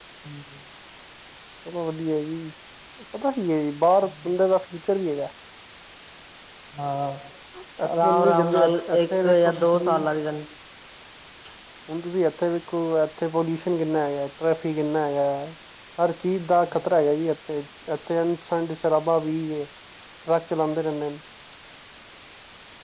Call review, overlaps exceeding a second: present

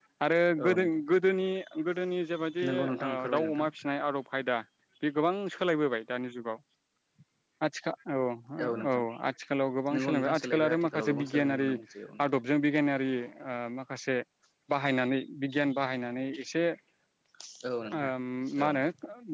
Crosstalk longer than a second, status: present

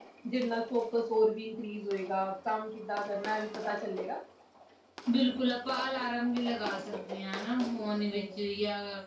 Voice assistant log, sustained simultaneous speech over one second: none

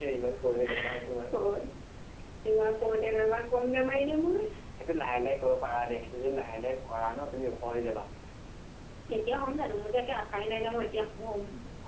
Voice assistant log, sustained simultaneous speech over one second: none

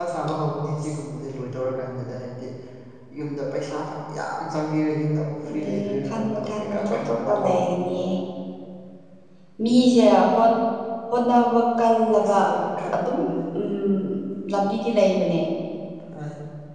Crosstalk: present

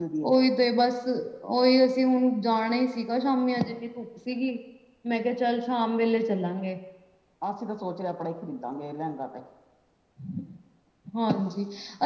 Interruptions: none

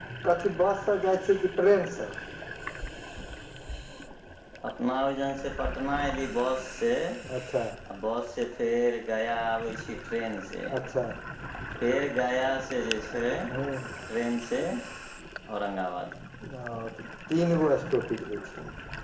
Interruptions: none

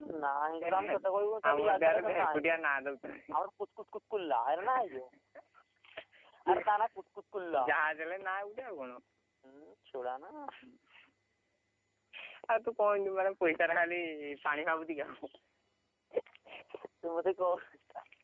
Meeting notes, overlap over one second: present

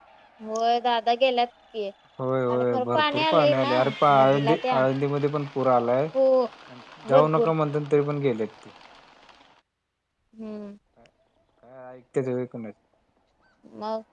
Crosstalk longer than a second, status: present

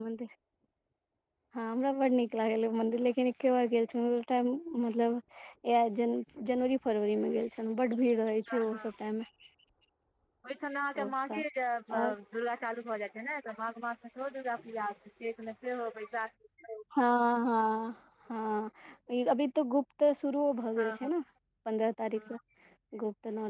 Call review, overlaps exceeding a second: none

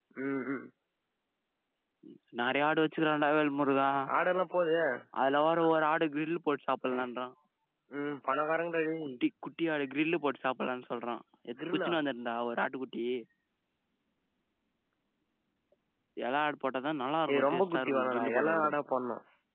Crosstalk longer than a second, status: present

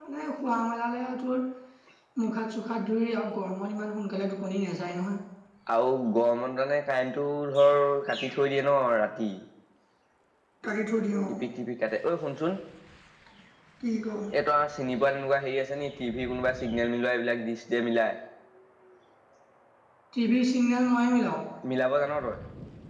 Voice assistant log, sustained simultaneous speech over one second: none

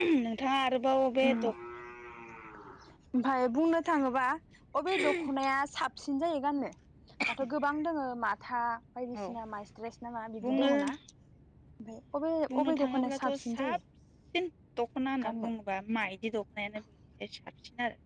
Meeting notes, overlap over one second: present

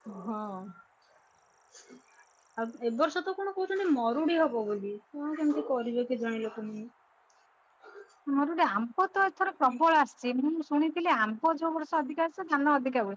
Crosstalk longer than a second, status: none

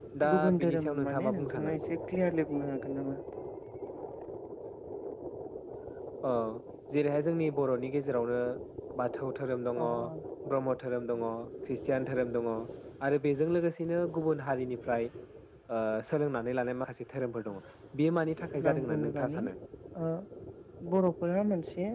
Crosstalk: present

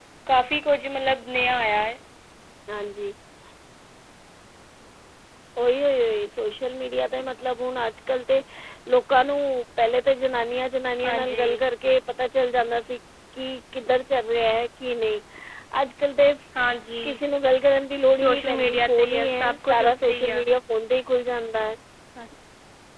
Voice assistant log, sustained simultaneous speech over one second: present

